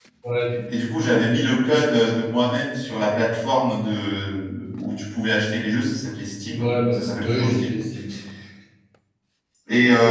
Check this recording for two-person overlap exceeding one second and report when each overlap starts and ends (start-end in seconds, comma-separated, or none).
6.5-7.7